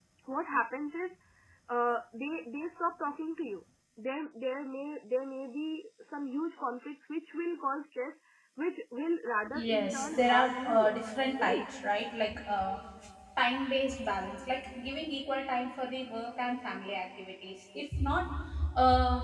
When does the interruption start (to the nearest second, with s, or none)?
9 s